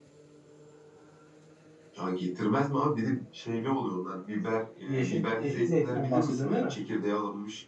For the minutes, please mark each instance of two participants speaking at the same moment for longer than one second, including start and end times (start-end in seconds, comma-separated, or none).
4.9-6.7